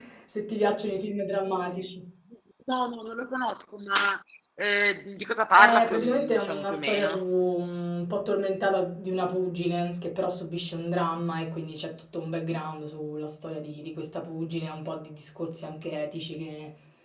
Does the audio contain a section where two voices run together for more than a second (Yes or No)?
Yes